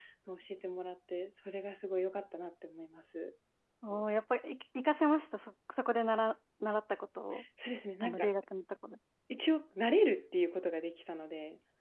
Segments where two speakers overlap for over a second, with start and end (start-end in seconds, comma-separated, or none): none